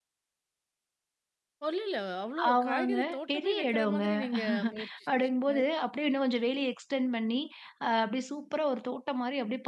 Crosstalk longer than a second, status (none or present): present